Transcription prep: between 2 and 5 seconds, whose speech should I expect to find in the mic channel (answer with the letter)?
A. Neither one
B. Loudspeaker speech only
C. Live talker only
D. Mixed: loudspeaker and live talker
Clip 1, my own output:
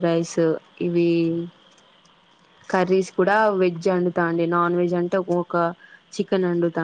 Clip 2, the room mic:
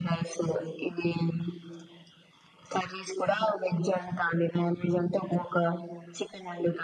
B